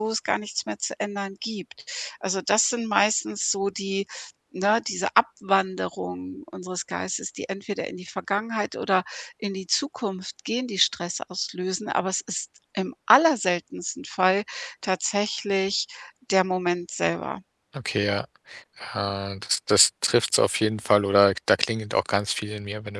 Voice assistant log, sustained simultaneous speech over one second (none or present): none